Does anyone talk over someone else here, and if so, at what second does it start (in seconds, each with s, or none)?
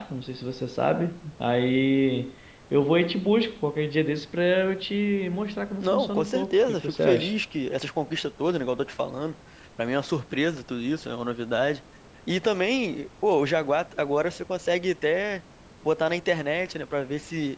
5.8 s